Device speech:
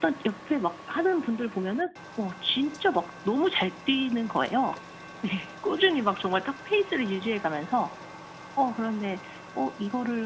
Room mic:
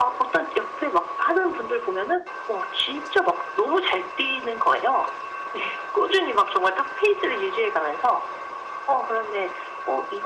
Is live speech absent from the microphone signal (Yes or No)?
Yes